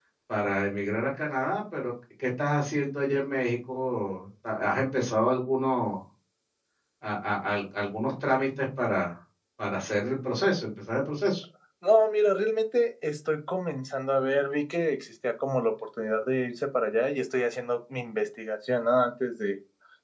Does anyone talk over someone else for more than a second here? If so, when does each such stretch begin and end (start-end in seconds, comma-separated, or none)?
none